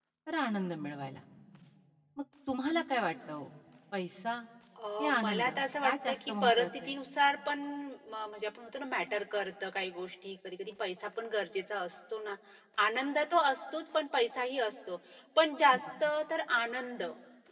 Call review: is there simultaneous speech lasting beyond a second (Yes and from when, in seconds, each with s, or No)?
Yes, from 5.0 s